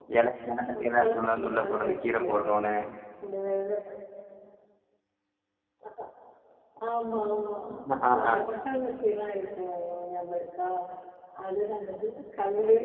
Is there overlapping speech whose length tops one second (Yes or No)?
Yes